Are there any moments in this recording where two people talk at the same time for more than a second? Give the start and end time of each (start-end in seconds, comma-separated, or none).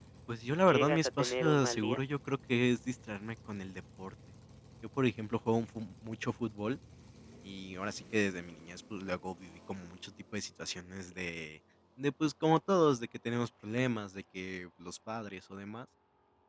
0.6-2.0